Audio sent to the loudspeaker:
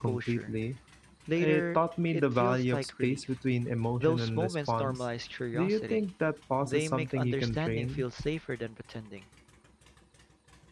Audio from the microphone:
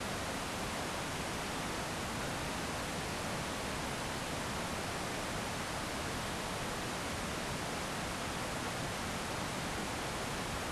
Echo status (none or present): none